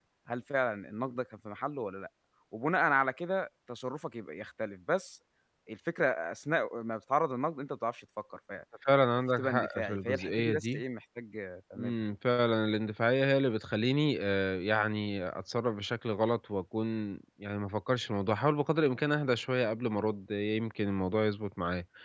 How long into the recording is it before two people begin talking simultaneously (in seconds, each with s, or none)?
9.4 s